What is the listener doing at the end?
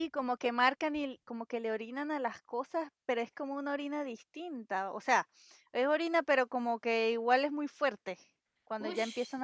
taking over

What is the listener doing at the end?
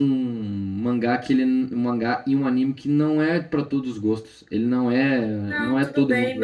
taking over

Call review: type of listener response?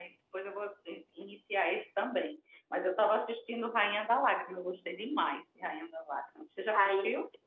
taking over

